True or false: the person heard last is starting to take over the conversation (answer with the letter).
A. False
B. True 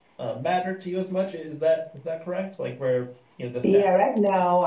B